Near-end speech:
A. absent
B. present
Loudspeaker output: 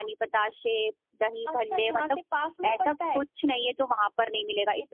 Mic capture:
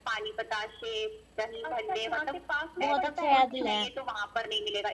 B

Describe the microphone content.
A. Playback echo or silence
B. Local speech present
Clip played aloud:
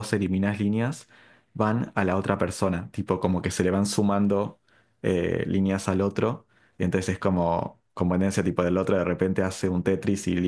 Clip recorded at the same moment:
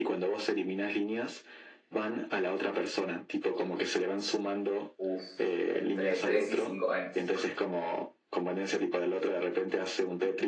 B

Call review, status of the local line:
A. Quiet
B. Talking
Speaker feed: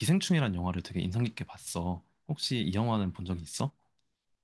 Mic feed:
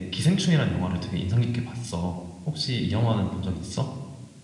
A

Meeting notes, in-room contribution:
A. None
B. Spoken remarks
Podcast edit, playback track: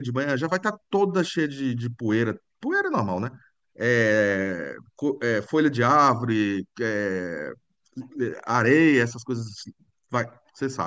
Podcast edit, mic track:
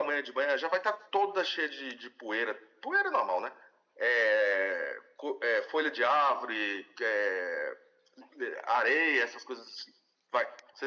A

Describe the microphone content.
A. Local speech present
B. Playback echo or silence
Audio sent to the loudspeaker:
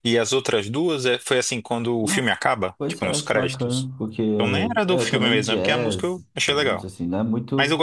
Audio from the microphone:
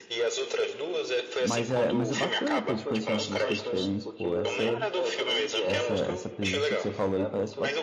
A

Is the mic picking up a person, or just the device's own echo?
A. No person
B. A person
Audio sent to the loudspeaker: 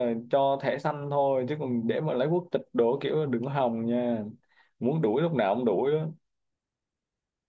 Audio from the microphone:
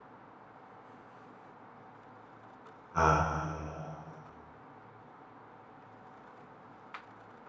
B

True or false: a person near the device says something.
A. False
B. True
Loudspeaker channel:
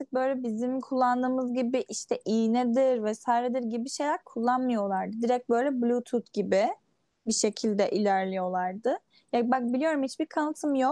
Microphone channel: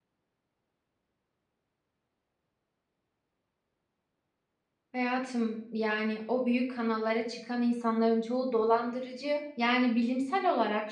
B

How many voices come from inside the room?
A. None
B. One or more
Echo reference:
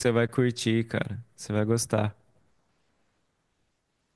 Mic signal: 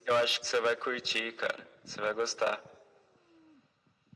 A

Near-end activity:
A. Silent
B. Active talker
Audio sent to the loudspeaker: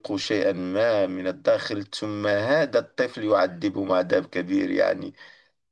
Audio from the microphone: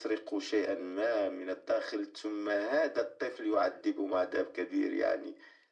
A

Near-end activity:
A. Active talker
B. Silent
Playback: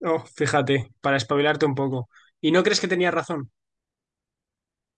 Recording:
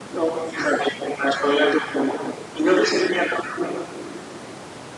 B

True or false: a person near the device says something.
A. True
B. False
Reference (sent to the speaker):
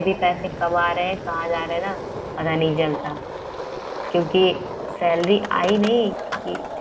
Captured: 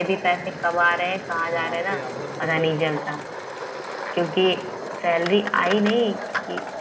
A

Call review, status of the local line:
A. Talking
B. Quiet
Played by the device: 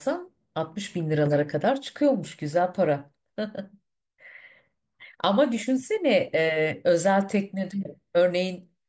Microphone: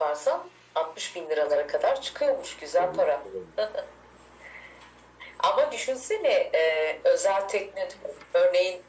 A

